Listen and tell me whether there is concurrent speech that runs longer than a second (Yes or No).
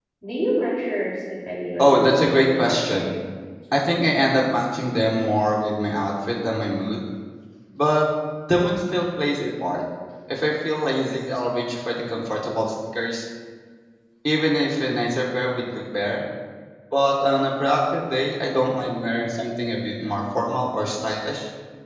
Yes